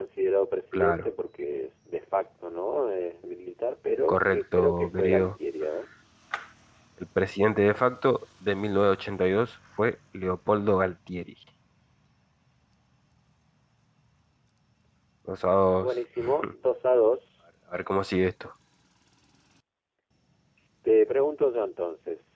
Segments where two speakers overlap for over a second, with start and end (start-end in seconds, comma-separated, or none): 4.1-5.3